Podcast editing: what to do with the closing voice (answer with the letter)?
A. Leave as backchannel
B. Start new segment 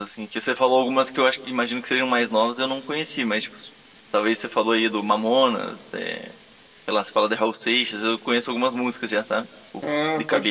B